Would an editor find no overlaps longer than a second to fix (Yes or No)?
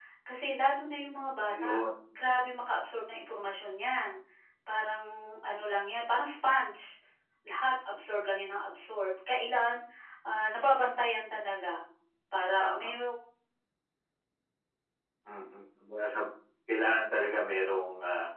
Yes